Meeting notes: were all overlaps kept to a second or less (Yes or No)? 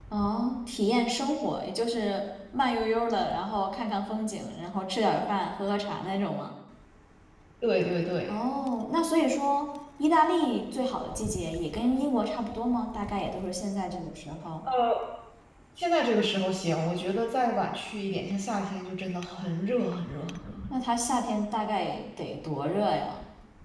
Yes